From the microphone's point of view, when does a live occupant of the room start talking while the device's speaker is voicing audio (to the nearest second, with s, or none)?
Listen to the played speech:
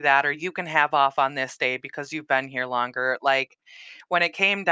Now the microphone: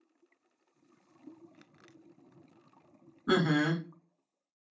3 s